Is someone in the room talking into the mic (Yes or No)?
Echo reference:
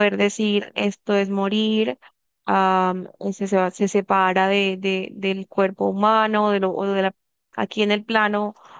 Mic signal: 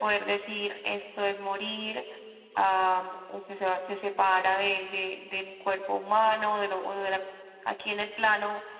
No